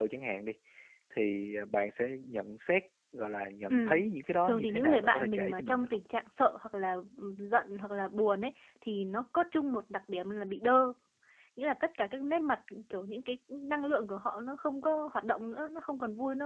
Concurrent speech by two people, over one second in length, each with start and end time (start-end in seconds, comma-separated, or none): 4.4-6.0